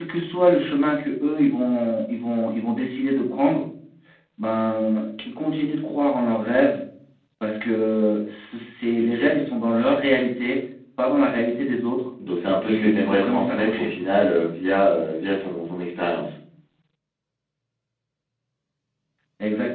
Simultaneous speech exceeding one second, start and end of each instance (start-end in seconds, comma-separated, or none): 12.6-13.9